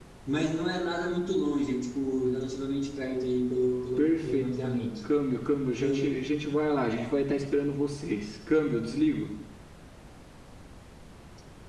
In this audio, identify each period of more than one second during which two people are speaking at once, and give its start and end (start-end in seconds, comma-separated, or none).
none